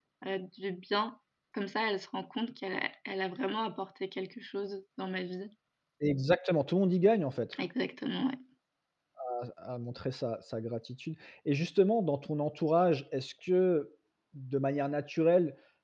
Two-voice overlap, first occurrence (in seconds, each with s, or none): none